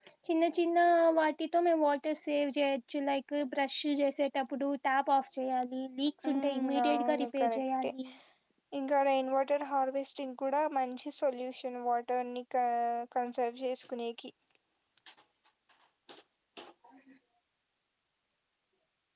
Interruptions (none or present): present